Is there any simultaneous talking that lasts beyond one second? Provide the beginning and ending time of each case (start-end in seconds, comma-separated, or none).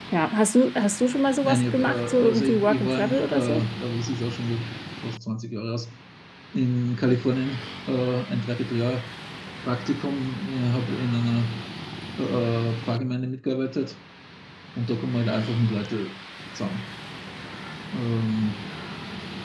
1.4-3.6